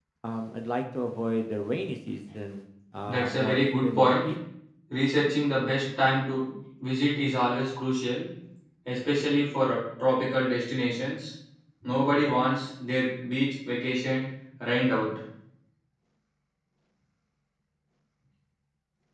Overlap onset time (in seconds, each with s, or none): 3.1 s